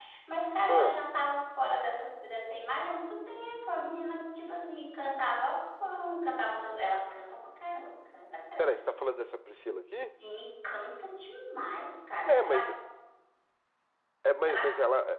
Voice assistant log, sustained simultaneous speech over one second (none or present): none